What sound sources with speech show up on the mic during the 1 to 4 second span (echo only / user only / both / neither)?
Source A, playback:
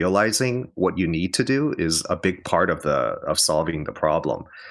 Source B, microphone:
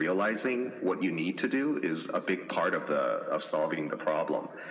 echo only